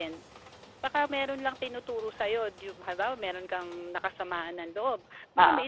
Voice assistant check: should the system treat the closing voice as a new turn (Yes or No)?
No